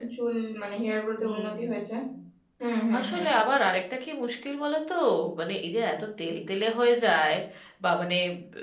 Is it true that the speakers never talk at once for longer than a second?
Yes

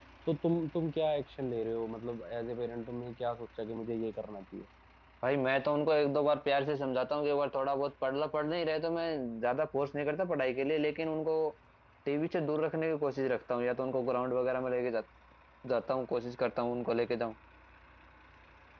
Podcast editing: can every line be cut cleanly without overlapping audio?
Yes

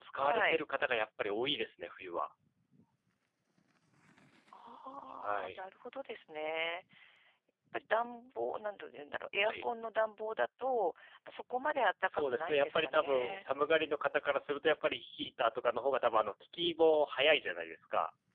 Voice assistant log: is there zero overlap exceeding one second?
No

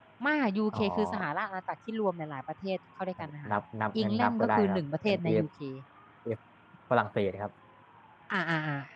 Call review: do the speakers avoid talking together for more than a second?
No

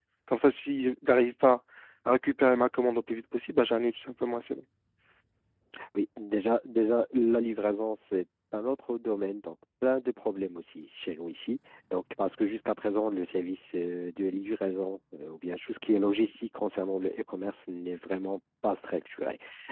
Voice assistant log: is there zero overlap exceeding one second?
Yes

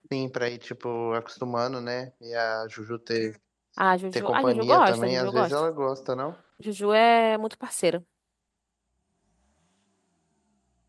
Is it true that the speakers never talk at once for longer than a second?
No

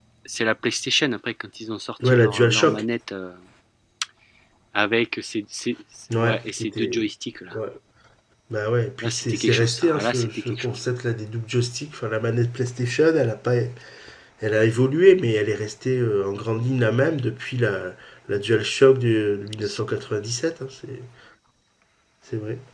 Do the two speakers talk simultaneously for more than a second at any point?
Yes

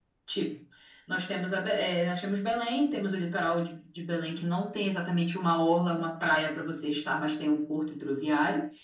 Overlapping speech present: No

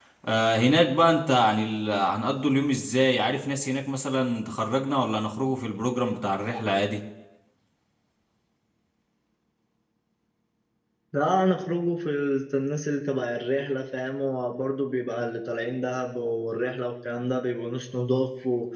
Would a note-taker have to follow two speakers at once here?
No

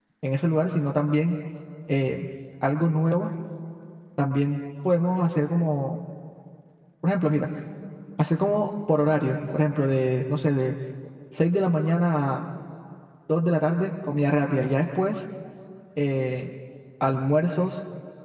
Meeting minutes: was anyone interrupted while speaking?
No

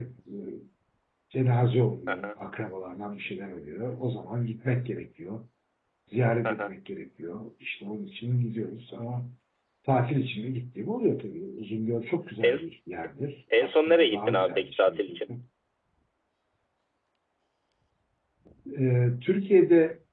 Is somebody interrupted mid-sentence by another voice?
Yes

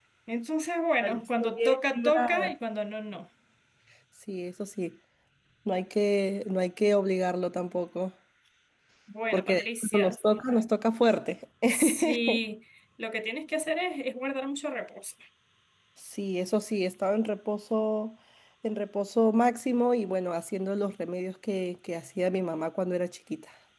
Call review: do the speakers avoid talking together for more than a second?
No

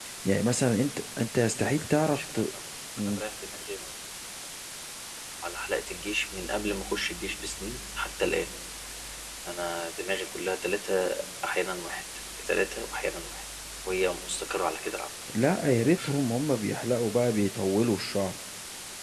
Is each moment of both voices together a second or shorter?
Yes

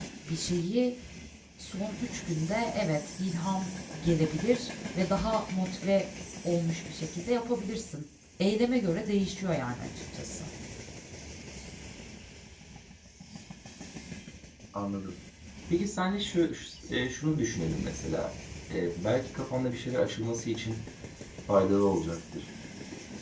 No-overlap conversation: Yes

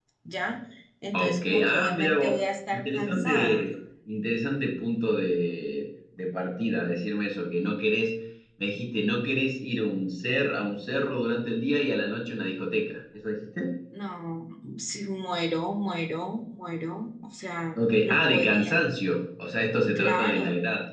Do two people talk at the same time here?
Yes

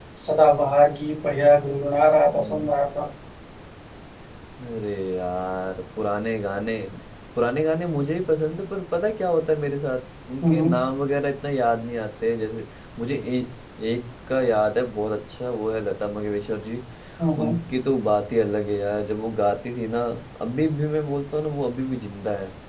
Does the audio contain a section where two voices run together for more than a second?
No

